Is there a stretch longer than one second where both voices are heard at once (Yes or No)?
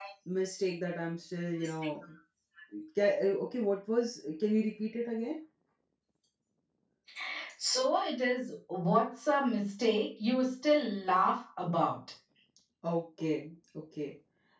No